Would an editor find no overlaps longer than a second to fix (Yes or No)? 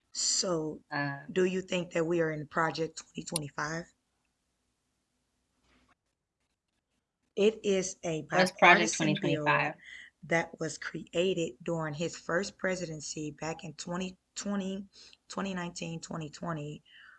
No